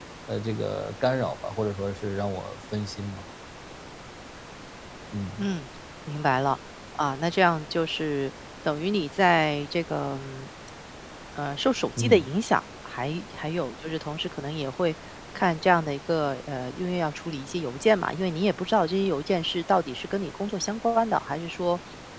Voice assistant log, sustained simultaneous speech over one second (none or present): none